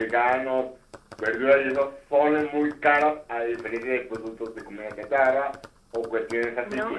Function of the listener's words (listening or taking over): taking over